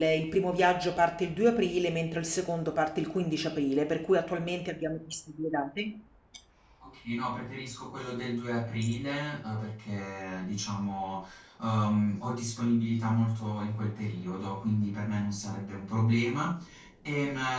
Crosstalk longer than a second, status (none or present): none